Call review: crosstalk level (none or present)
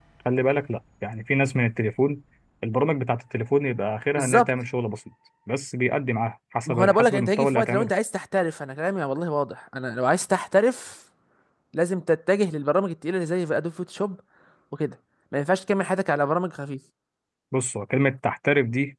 present